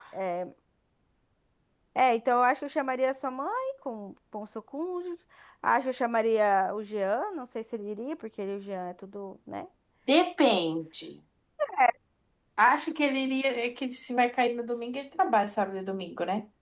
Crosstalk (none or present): none